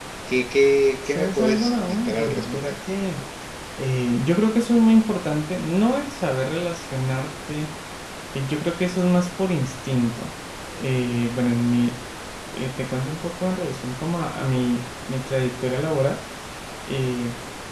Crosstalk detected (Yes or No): Yes